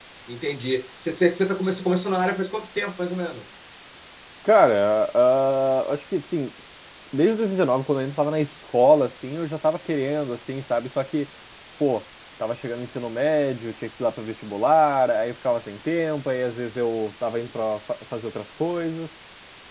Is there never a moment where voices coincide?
Yes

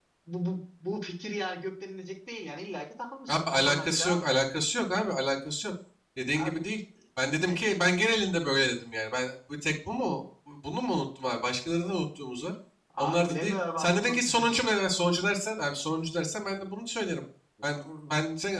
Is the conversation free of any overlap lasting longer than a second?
No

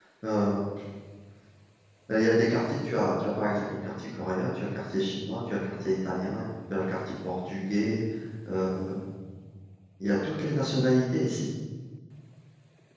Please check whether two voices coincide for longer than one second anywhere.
No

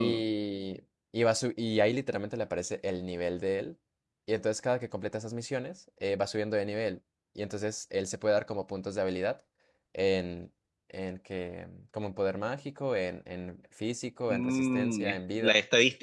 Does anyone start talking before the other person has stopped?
Yes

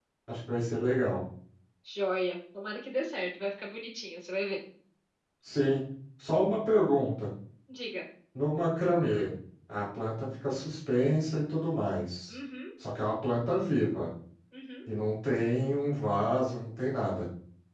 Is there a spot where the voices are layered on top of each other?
No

